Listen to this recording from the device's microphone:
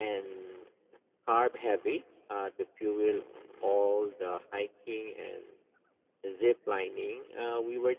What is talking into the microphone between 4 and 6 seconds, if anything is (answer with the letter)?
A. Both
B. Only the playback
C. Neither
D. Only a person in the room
B